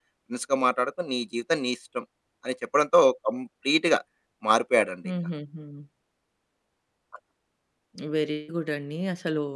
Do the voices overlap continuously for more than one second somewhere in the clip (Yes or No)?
No